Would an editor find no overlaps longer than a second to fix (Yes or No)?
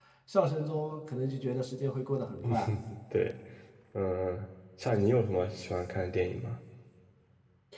Yes